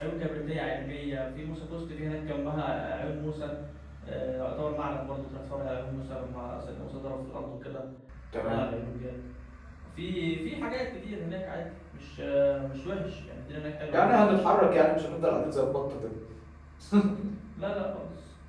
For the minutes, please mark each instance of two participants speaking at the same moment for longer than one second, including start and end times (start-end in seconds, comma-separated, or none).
none